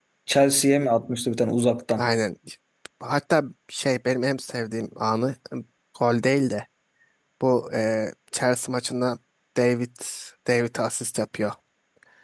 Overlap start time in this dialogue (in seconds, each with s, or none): none